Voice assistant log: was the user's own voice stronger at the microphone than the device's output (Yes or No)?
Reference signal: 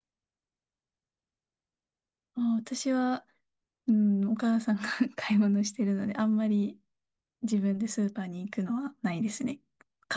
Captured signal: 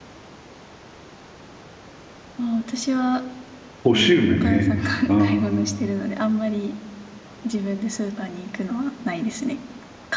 Yes